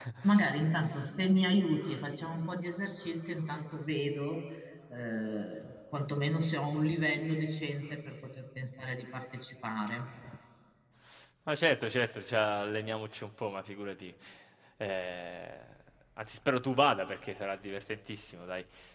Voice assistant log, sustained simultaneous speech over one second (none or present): none